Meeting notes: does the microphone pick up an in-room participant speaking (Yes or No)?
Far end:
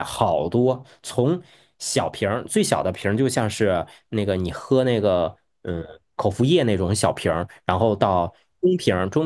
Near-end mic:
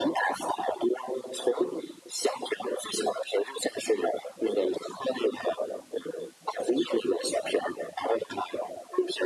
No